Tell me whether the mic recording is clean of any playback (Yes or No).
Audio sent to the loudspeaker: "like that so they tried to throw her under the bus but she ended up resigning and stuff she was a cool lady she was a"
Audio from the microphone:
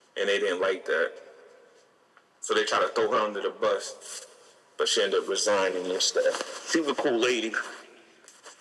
No